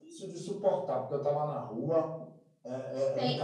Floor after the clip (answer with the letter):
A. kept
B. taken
B